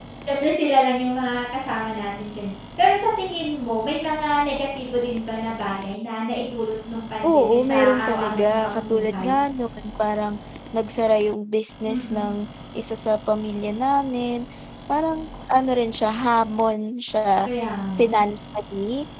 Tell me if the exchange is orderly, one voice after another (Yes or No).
No